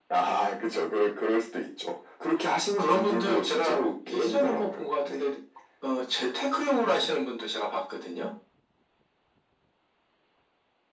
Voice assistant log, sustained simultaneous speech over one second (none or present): present